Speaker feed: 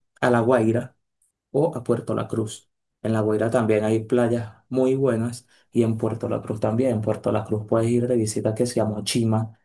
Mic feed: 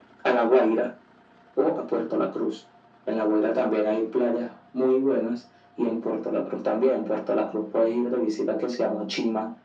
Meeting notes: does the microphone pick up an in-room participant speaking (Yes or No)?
No